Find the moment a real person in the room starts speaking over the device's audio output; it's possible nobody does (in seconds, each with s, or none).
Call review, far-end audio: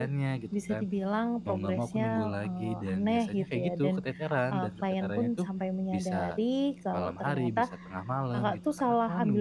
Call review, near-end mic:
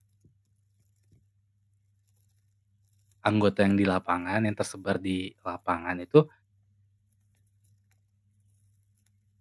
3.3 s